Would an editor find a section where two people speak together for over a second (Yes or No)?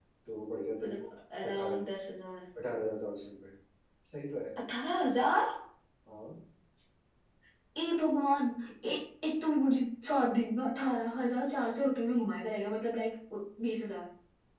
No